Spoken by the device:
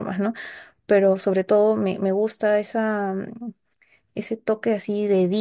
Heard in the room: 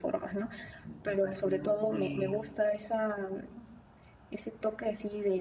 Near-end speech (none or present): present